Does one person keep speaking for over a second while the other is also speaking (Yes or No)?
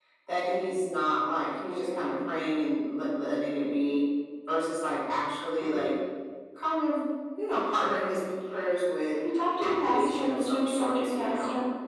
Yes